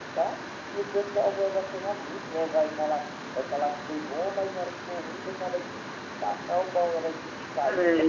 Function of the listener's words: taking over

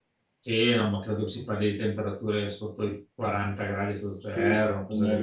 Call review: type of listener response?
taking over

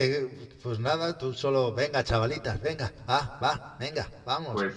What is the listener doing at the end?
taking over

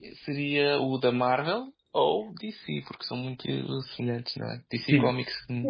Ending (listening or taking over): taking over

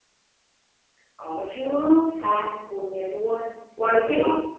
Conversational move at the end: taking over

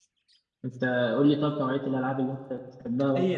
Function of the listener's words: taking over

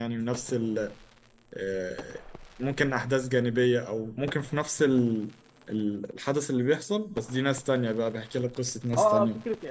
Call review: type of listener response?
taking over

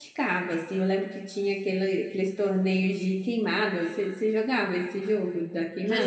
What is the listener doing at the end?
taking over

